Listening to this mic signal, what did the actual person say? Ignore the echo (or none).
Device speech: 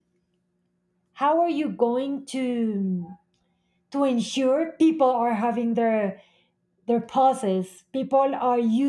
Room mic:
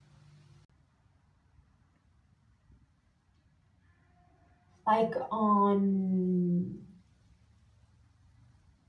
like on